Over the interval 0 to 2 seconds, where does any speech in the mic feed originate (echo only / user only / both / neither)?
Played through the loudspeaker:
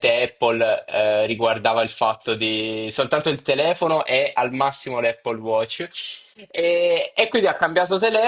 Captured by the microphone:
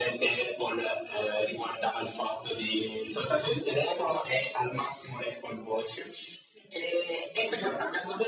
echo only